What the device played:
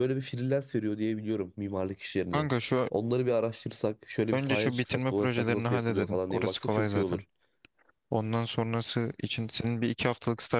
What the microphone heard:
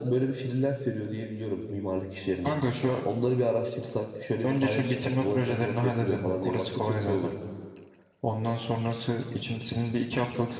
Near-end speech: none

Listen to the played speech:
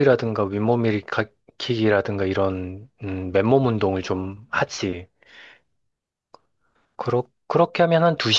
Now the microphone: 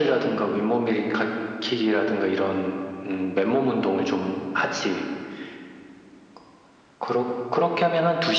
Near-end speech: none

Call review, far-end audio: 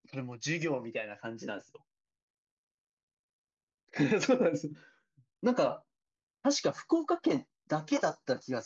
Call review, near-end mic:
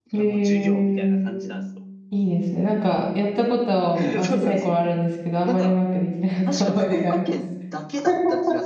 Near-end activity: present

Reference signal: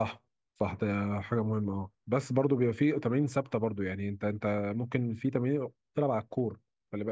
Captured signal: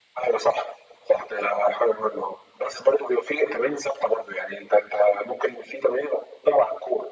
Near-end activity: none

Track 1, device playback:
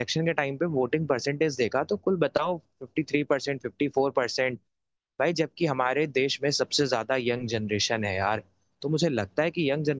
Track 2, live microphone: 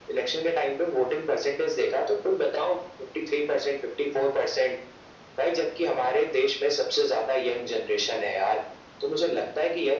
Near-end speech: none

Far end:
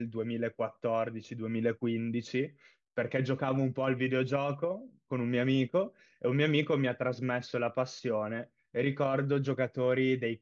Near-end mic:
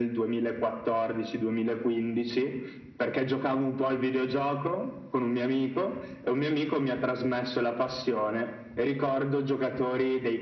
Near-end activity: none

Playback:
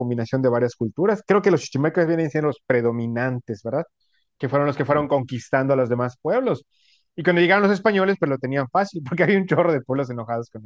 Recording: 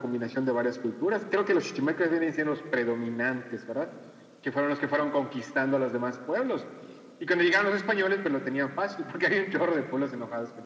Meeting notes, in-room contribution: none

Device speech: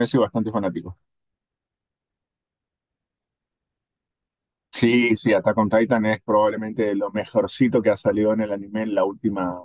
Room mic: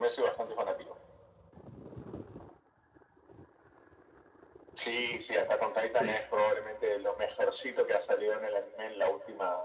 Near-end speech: present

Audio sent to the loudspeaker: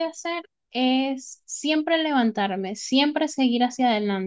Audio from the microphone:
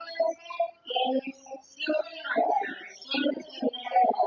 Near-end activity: none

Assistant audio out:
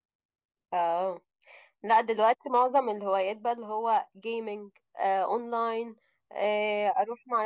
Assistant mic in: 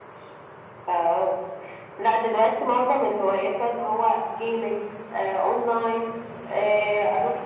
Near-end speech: none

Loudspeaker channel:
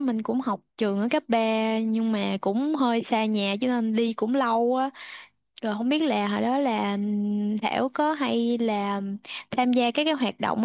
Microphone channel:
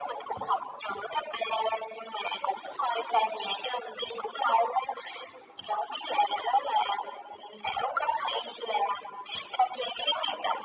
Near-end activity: none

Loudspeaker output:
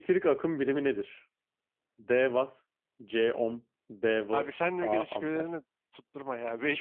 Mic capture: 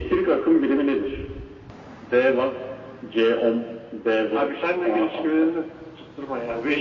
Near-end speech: none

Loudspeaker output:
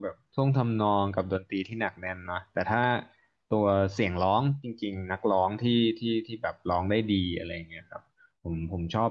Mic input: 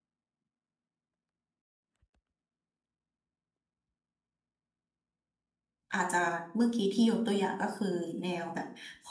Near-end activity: present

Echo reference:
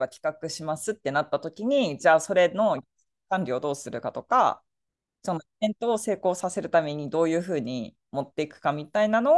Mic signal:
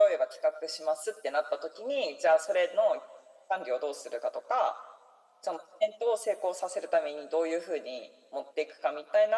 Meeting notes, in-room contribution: none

